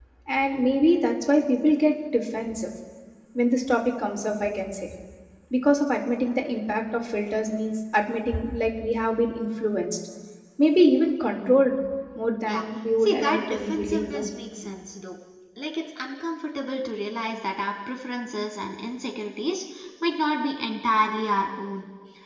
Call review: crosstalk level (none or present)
present